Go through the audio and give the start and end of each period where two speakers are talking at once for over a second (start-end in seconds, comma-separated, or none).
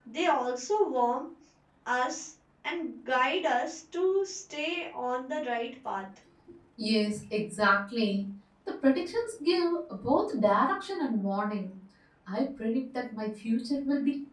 none